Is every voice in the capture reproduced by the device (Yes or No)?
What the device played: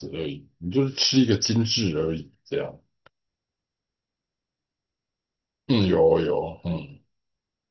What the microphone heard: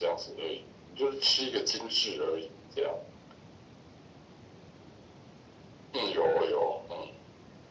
Yes